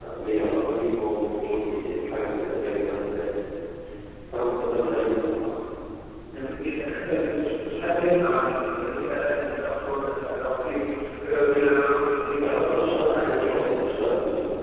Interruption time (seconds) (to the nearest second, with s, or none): 12 s